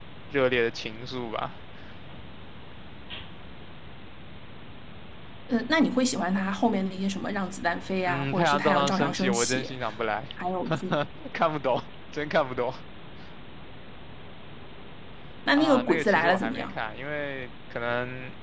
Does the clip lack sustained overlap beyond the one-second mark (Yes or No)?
No